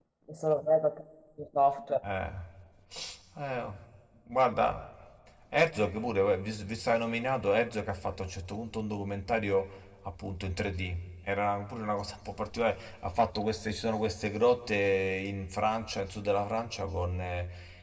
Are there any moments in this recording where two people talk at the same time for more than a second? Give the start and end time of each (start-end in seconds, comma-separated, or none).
none